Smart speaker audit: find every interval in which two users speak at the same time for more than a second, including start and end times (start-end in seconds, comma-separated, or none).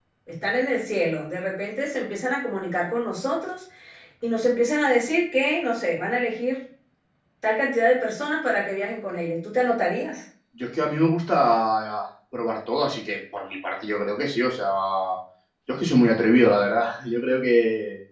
none